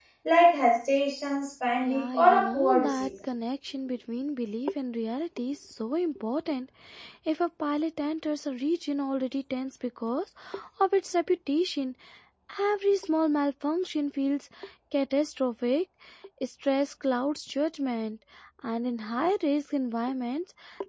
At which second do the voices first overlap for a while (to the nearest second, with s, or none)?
2 s